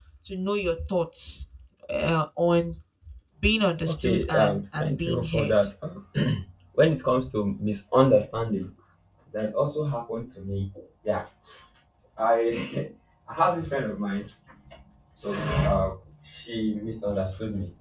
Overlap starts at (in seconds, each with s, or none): 3.9 s